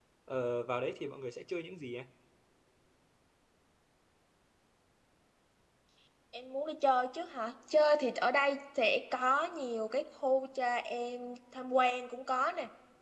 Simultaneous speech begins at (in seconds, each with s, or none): none